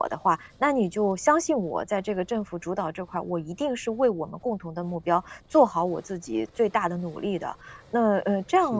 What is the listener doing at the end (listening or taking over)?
listening